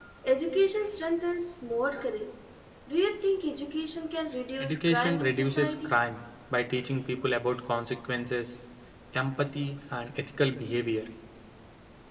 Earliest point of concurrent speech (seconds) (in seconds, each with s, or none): 4.6 s